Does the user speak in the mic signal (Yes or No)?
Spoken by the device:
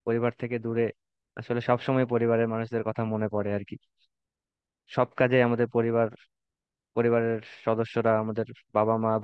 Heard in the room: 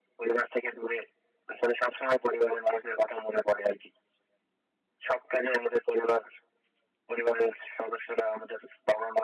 No